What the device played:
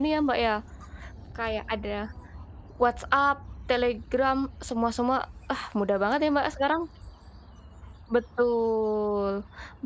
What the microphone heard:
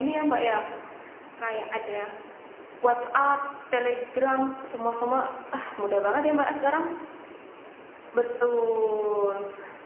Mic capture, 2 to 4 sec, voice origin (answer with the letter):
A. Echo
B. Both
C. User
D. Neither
A